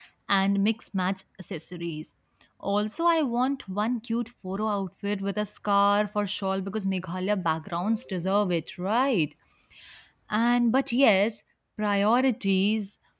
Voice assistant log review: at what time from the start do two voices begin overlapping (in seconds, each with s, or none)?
none